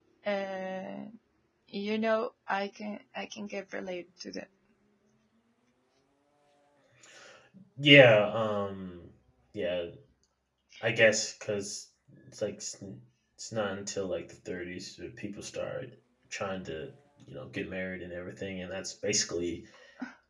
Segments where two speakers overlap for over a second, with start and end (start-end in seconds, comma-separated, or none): none